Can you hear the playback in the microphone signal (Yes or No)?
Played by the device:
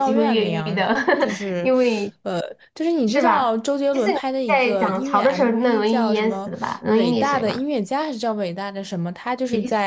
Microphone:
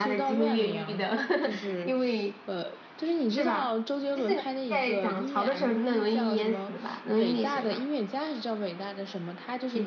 Yes